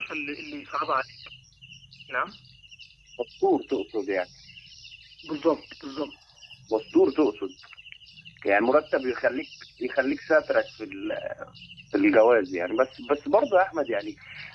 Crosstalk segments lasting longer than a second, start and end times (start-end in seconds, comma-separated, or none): none